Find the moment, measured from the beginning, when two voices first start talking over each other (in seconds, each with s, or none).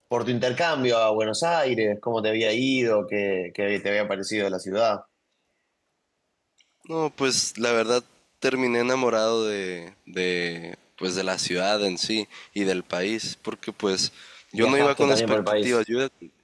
14.6 s